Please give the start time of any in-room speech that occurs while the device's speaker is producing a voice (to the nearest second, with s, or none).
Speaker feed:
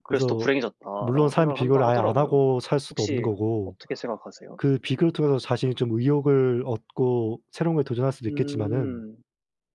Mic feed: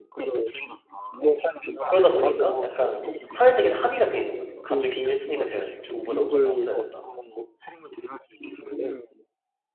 2 s